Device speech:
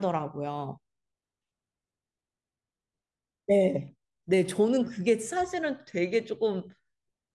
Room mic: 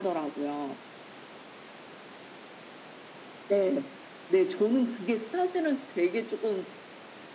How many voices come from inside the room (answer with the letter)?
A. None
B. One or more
A